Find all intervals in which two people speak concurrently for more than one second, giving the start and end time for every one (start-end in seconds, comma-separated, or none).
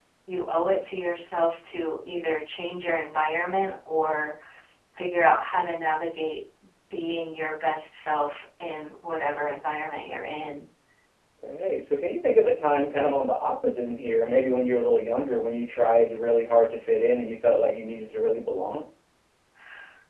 none